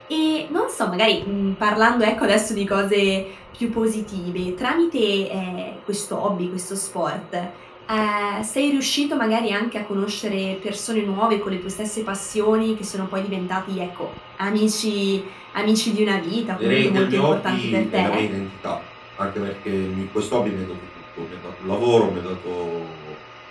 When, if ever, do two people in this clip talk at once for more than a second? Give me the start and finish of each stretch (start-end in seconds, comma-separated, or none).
16.6-18.2